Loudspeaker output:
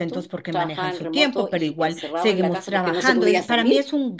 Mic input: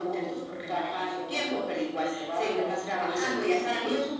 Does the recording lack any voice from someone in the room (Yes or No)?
Yes